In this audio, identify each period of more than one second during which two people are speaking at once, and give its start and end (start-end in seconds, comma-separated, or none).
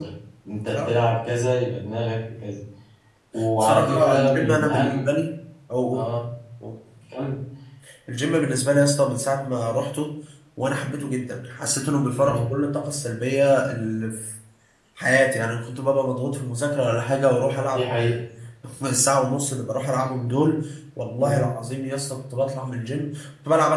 3.6-5.1